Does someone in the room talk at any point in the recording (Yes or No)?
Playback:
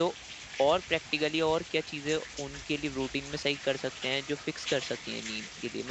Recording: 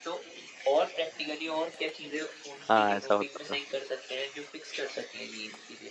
Yes